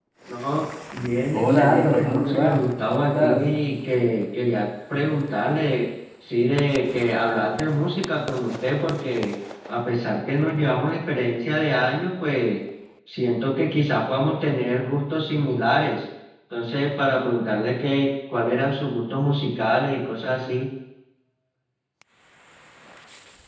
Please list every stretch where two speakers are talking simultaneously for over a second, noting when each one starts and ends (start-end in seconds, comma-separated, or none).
1.3-3.4